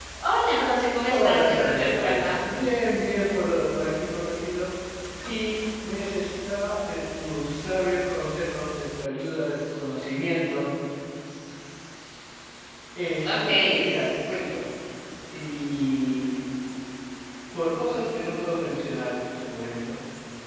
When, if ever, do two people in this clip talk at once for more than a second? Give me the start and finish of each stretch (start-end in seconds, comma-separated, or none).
1.1-2.4